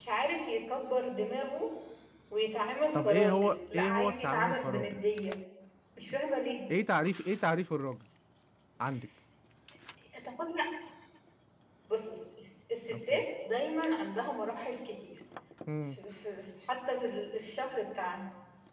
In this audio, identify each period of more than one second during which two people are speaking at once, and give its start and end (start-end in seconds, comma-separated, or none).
2.9-5.0